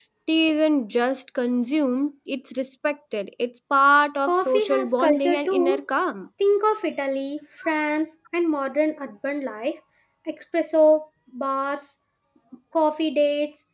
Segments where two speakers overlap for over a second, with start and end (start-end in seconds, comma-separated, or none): 4.3-5.8